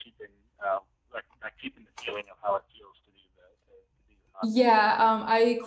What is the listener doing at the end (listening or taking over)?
taking over